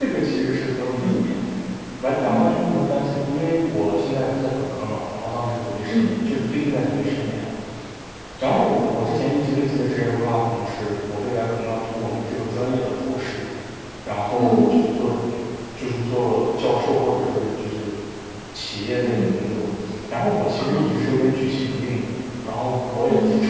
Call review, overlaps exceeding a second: none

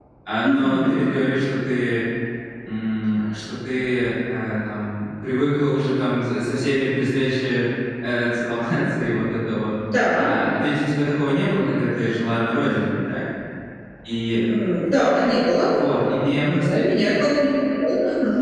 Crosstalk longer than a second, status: none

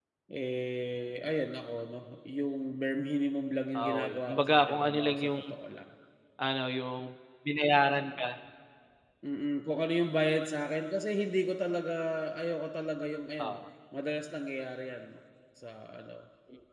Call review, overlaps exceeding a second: present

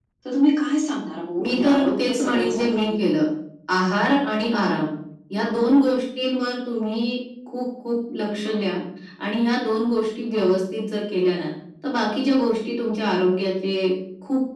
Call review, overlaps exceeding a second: present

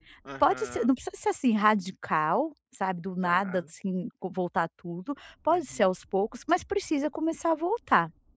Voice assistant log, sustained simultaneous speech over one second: none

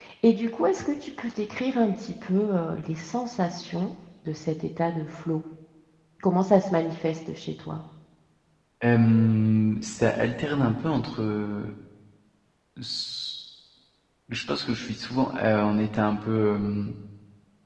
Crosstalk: none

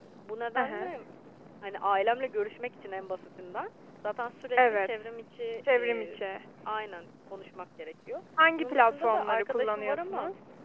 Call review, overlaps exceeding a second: present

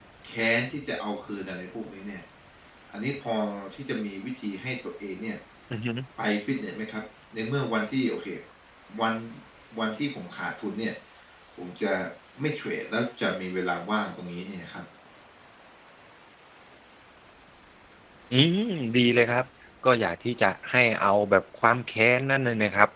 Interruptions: none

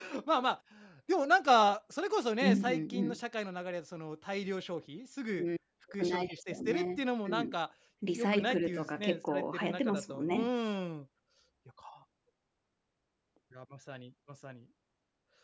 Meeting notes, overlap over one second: present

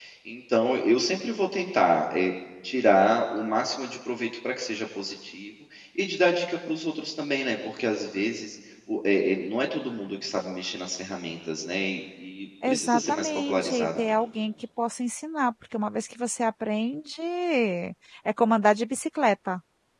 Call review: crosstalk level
present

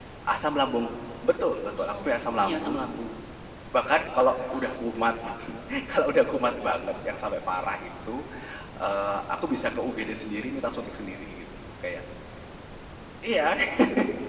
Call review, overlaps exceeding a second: present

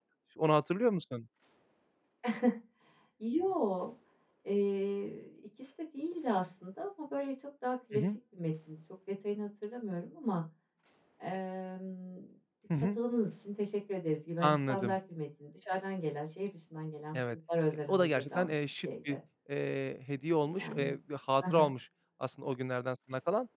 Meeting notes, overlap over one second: present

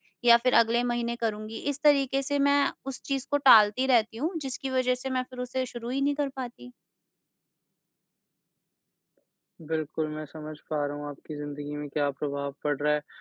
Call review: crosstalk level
none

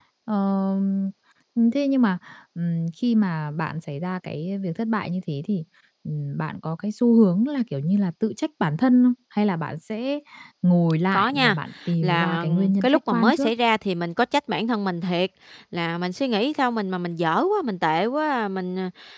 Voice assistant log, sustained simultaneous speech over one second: present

